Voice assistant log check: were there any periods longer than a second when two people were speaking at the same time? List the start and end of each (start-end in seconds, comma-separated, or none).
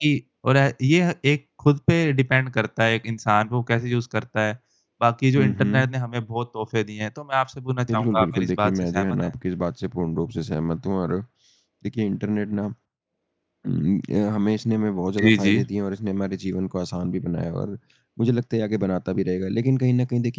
7.9-9.2